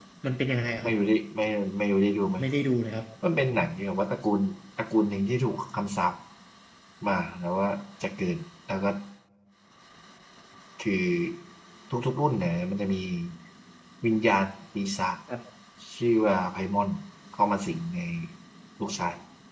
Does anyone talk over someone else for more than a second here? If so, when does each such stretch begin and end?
none

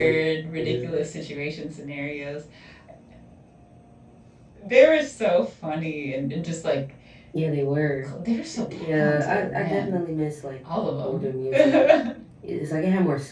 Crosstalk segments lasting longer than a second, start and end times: 8.5-9.9

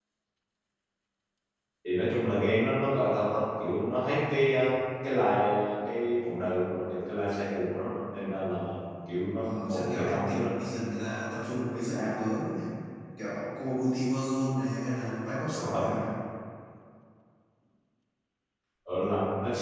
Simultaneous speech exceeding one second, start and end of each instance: 9.4-10.6

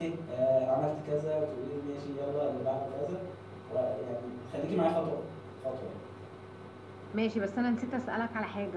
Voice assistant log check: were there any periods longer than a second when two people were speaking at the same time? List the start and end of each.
none

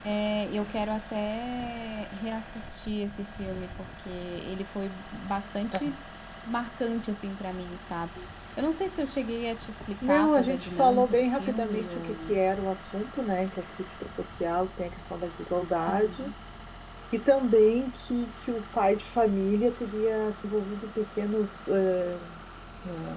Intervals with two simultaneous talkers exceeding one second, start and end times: 10.0-12.4

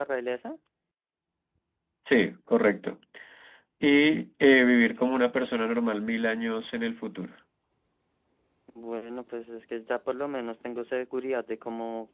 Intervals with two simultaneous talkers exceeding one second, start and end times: none

